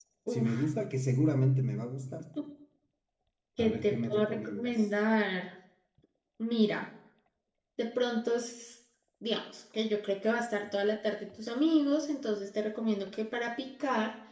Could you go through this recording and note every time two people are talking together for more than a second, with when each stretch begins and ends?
3.6-4.9

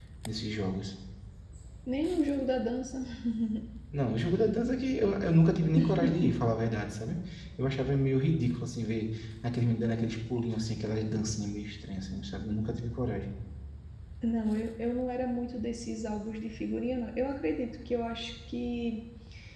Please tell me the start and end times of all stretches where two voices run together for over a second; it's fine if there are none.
none

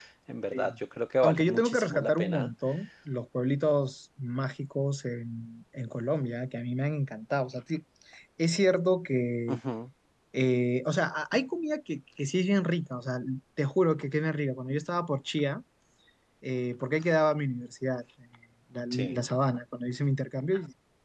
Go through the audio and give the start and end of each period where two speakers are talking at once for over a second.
1.2-2.5

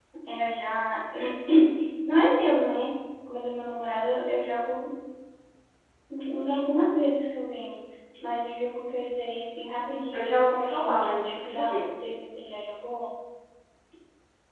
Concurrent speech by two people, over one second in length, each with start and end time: 10.1-11.9

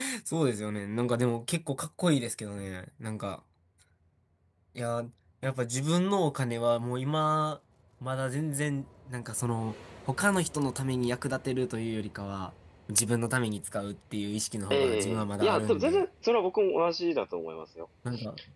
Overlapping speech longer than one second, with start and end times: 14.7-16.0

